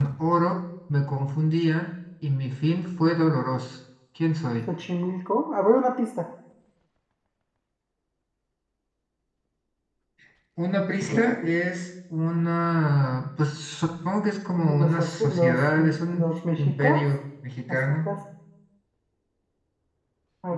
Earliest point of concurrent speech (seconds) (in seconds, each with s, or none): 14.7 s